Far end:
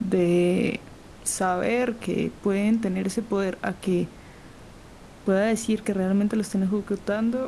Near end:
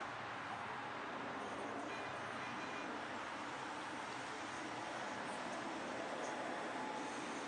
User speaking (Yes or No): No